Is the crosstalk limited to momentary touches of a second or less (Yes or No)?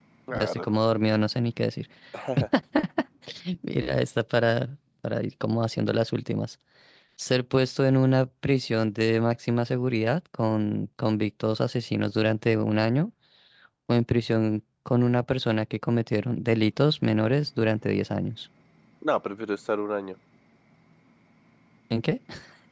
Yes